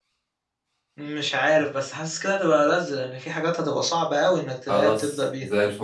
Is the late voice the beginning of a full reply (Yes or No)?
Yes